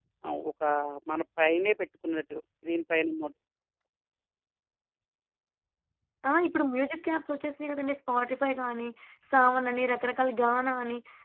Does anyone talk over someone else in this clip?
No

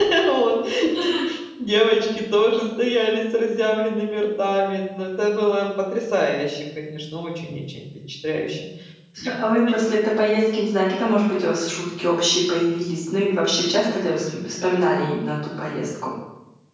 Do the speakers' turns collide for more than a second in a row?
No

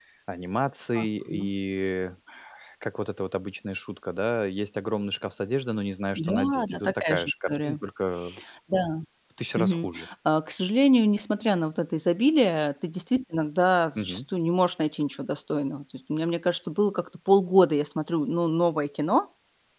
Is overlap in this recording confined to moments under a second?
No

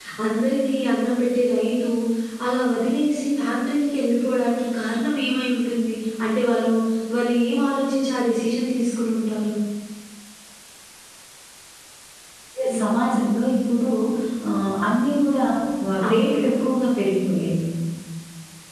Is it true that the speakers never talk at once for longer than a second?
Yes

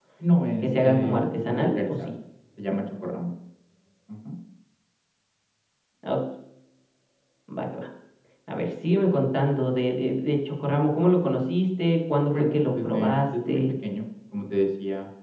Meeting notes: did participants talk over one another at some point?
Yes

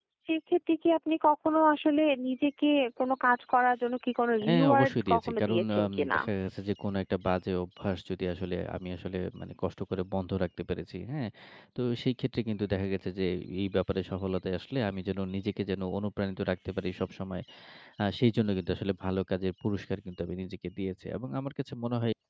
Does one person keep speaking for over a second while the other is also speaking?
Yes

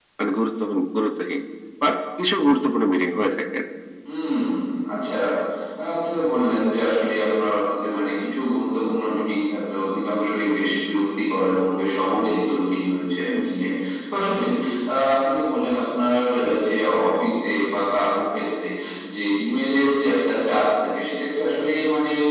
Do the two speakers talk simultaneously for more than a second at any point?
No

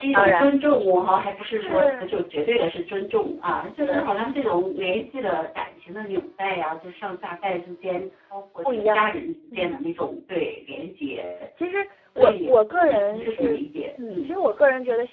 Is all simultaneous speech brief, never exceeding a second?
No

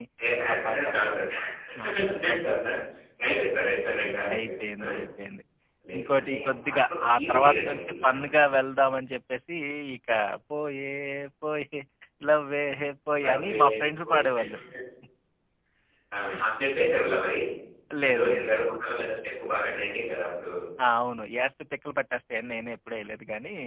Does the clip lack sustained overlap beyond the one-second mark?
No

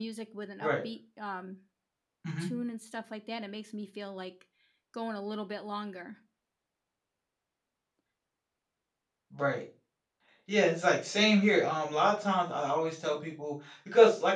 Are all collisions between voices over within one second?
Yes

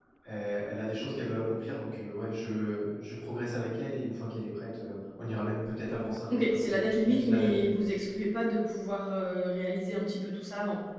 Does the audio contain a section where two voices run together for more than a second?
Yes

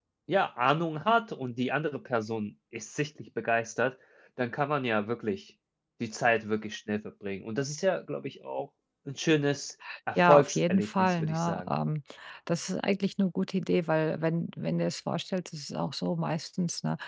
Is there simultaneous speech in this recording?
Yes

